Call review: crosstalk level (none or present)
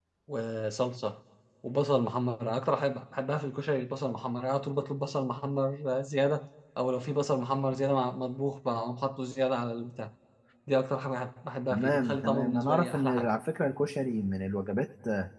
present